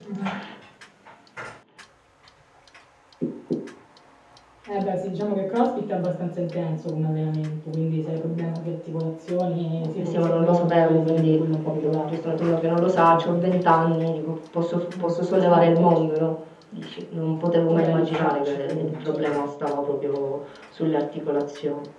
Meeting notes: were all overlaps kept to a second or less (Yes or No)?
No